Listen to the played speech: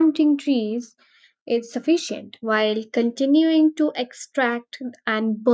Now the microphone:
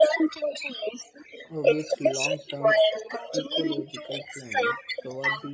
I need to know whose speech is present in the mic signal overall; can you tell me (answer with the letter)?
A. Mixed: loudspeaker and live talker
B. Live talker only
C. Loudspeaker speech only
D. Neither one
A